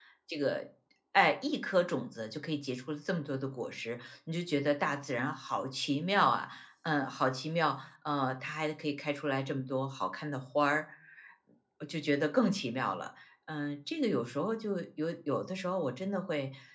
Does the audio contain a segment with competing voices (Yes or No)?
No